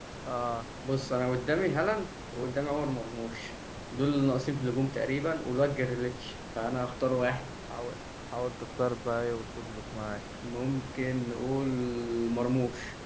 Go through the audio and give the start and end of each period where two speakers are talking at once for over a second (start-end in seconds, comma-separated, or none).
none